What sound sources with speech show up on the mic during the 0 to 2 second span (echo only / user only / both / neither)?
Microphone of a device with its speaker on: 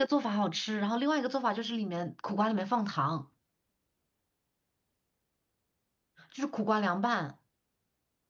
user only